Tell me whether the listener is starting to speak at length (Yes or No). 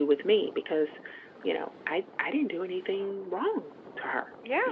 Yes